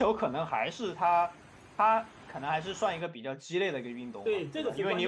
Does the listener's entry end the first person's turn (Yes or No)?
Yes